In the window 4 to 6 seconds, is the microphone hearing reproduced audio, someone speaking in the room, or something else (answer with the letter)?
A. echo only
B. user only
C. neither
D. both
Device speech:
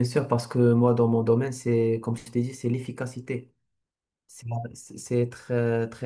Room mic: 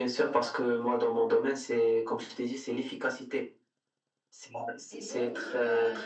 D